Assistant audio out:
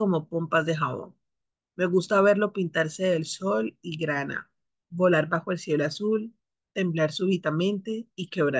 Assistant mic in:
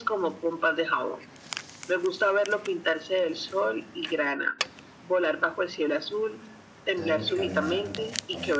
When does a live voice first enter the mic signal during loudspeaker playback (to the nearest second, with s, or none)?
7 s